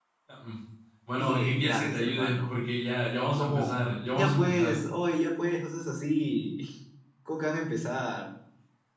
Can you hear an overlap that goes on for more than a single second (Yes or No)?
Yes